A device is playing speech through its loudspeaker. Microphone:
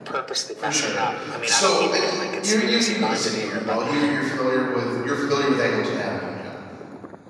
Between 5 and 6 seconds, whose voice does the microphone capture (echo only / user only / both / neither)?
user only